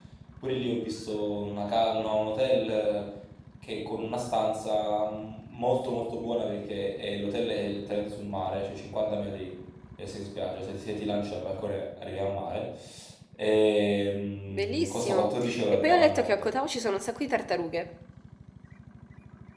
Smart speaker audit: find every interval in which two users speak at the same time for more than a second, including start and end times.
14.6-16.5

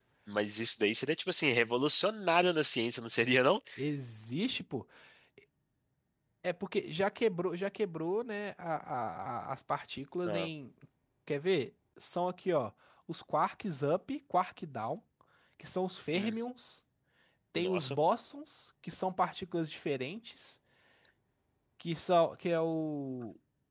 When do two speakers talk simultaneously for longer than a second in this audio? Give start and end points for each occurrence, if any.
none

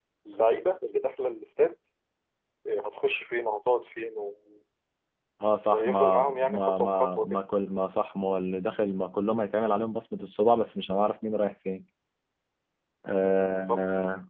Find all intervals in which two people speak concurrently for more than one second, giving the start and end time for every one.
5.7-7.4

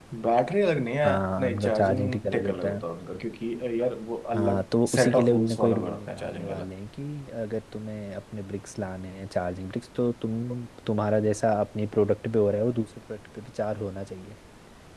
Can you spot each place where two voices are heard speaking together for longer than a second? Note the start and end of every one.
1.0-2.8, 4.3-6.7

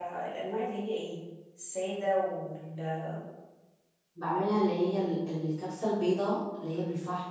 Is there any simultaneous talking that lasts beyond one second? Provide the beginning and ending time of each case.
none

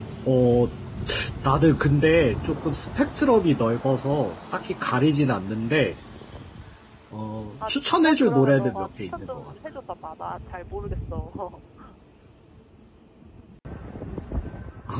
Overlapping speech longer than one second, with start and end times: 7.7-9.5

